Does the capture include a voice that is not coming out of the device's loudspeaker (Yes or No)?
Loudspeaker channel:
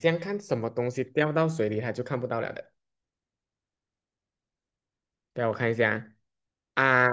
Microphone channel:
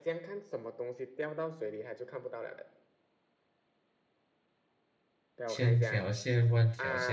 Yes